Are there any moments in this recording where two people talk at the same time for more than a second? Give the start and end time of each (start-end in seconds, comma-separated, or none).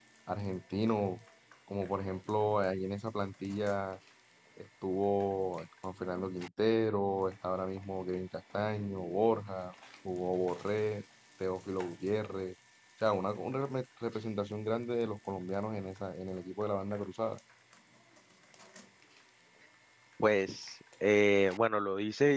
none